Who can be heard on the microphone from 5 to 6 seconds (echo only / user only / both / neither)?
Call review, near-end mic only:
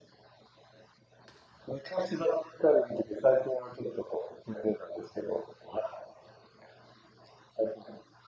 echo only